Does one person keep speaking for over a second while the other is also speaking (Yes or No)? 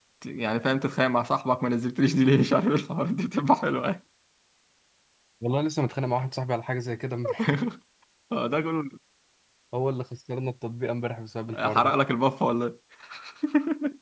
No